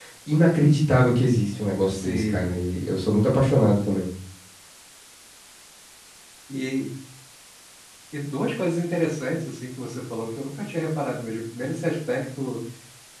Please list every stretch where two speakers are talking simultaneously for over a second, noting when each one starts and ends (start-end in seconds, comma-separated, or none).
none